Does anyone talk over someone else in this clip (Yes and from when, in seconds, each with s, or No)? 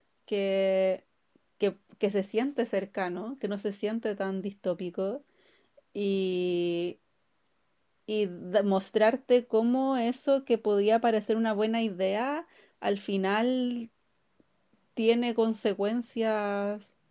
No